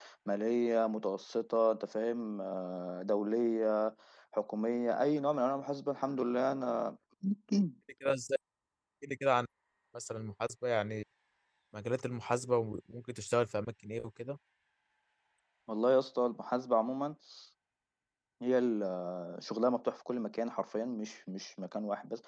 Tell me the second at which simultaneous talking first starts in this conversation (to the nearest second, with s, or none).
none